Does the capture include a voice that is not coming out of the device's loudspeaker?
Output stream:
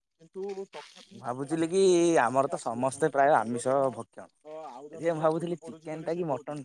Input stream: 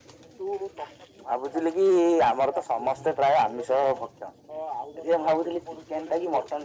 No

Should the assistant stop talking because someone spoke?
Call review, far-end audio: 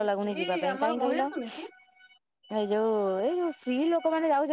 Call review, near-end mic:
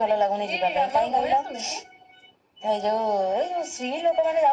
No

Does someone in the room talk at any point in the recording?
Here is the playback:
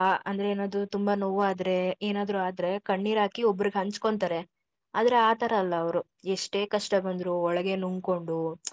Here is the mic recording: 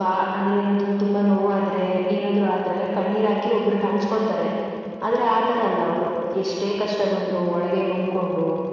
No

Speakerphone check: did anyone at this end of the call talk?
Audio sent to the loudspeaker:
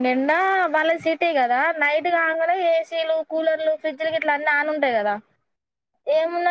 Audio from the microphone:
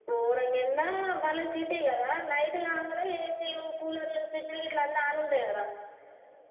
No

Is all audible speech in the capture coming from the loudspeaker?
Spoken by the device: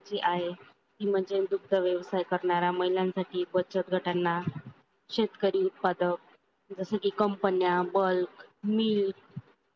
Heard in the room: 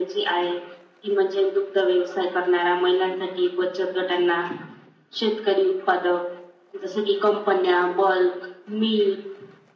Yes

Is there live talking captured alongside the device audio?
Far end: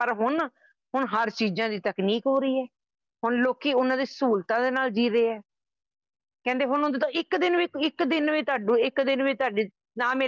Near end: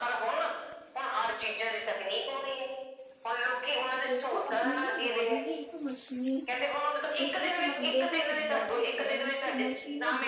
Yes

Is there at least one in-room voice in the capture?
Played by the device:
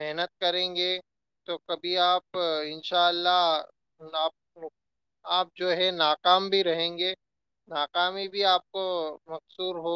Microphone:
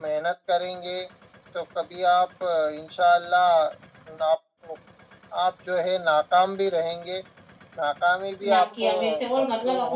Yes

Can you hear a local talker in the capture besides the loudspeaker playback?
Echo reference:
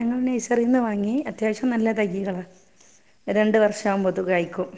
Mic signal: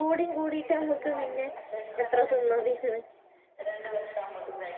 Yes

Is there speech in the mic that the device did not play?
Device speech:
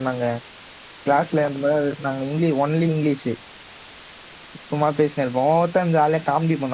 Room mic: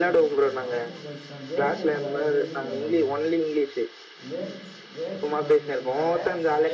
Yes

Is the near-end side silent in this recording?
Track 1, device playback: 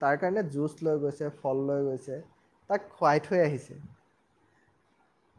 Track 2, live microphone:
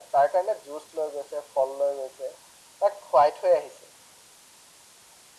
Yes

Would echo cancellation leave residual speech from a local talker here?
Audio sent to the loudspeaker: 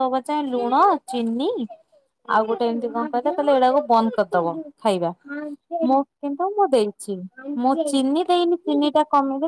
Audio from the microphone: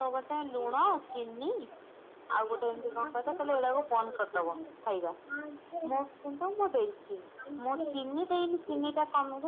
No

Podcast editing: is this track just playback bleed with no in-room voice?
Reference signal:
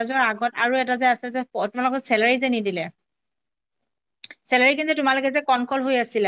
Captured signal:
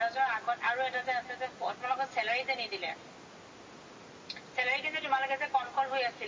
Yes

